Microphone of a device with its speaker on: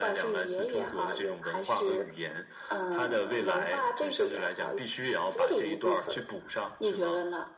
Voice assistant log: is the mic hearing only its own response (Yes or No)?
Yes